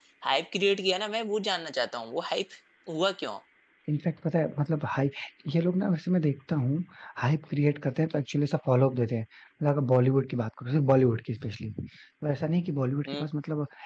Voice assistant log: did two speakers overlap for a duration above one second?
No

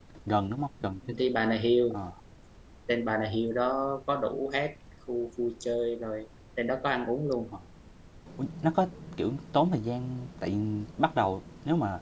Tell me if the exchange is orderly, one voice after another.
Yes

